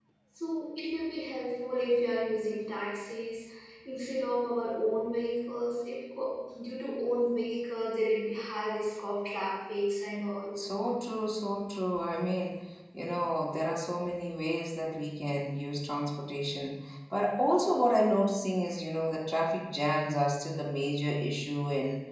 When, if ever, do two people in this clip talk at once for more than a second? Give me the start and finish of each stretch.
none

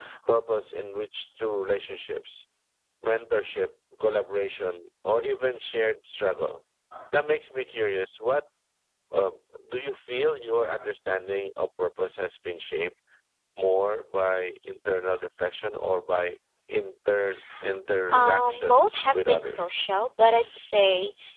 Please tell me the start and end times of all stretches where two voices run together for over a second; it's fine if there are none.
18.1-19.7

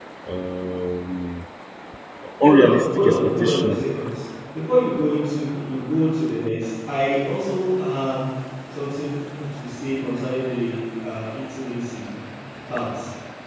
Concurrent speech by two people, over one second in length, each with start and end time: 2.4-3.8

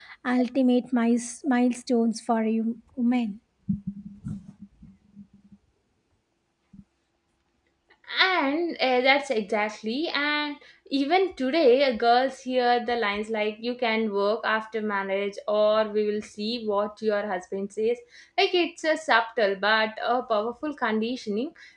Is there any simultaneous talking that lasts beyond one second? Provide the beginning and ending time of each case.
none

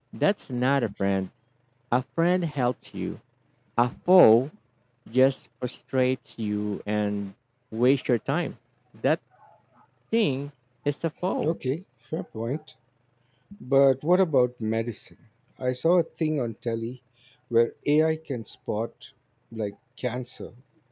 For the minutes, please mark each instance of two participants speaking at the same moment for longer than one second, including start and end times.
none

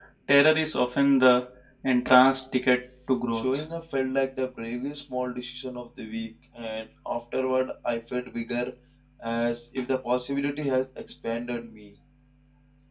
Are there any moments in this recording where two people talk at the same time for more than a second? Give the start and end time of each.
none

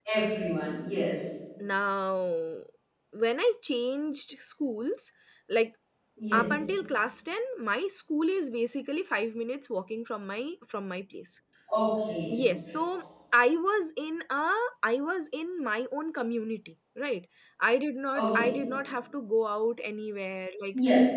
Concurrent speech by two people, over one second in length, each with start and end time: none

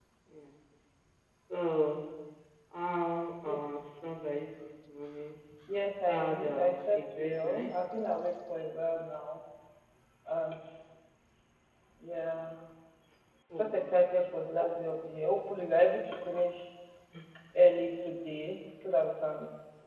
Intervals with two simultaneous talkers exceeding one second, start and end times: 6.1-7.7

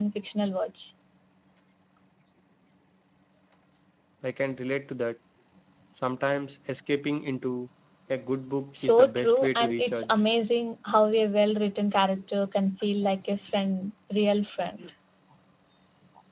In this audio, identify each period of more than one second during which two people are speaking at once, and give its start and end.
8.8-10.2

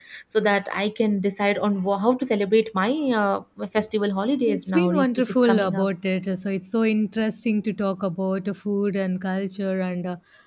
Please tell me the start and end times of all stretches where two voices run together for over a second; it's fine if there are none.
4.5-5.9

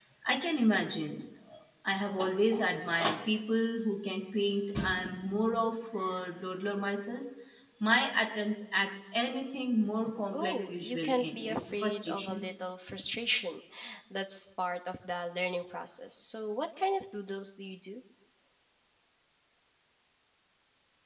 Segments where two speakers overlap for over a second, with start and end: 10.3-12.5

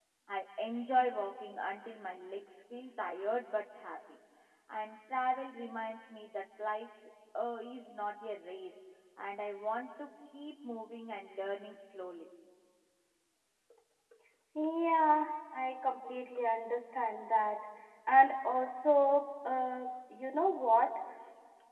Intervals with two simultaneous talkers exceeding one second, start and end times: none

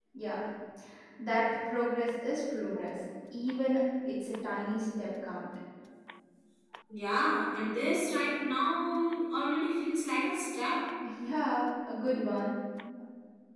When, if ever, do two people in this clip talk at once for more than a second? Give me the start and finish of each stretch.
none

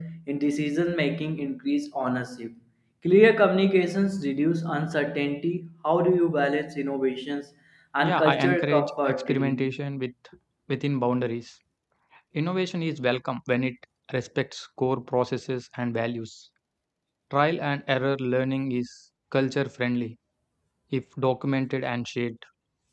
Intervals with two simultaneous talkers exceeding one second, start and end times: 8.0-9.7

